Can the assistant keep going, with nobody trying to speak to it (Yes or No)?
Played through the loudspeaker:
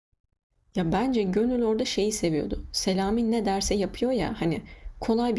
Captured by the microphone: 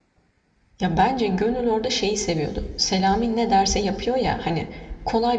Yes